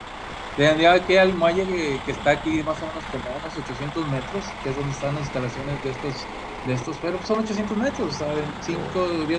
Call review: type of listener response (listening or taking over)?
listening